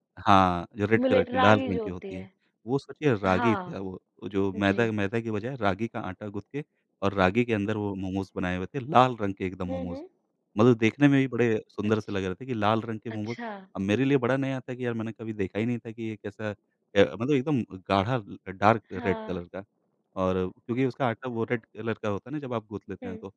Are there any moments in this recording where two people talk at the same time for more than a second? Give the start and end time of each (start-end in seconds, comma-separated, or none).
1.0-2.2